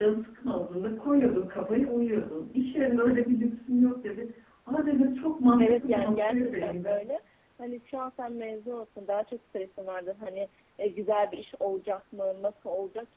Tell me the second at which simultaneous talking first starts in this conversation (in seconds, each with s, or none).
5.6 s